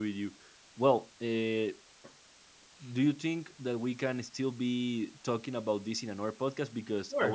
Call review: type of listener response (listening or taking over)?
taking over